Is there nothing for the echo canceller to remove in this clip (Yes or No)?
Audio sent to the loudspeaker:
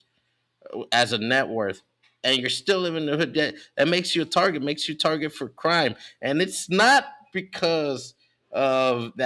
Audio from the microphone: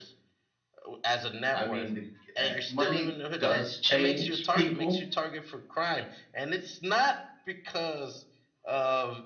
No